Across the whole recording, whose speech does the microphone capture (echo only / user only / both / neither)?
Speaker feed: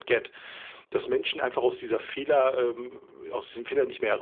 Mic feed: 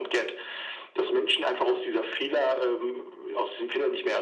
echo only